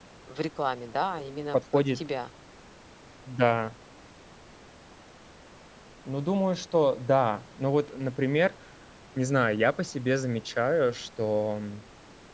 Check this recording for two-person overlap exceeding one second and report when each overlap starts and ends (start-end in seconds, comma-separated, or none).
none